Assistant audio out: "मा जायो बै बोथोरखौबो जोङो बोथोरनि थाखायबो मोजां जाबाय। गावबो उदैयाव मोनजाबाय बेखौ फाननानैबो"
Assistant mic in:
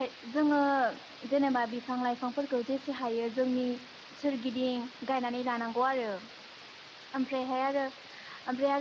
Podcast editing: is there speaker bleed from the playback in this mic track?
No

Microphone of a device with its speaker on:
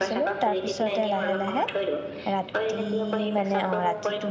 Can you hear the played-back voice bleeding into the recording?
Yes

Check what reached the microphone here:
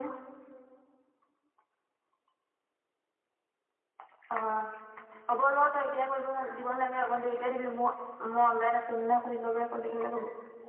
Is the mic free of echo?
No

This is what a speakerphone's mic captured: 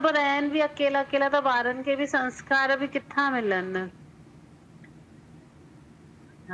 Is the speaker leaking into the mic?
Yes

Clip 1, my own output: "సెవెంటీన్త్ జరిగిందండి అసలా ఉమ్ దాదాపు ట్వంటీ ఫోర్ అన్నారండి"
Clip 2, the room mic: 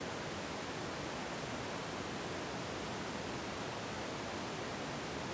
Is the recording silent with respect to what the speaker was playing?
Yes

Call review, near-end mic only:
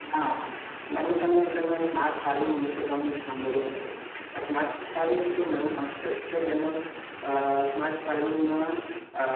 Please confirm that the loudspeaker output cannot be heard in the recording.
No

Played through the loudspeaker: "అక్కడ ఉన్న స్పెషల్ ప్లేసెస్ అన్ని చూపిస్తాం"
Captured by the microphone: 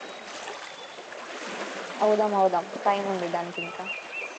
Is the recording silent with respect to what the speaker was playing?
Yes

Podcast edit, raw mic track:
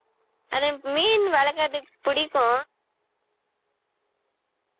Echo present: No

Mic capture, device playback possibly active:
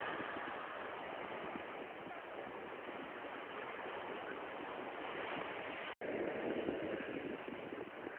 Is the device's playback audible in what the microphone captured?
No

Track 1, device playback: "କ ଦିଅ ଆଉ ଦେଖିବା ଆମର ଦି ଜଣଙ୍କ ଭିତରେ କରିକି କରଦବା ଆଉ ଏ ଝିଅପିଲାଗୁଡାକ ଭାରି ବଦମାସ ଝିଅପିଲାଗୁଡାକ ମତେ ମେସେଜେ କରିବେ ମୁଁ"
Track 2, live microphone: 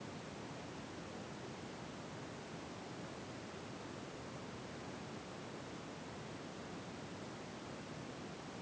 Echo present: No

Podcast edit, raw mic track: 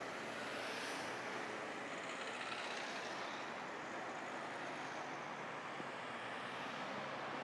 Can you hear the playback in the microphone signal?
No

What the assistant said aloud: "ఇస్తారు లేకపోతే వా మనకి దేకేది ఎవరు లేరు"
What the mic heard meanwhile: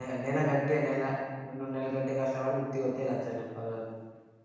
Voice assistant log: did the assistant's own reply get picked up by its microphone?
No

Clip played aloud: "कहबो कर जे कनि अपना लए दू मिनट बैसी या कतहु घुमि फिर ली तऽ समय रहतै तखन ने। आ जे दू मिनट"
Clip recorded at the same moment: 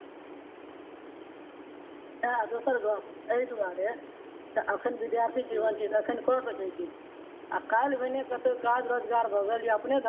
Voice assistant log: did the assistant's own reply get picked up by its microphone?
No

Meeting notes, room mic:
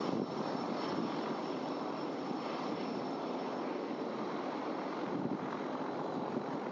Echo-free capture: Yes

